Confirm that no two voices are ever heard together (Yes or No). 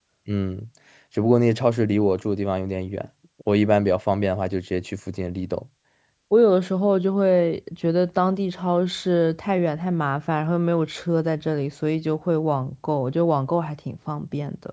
Yes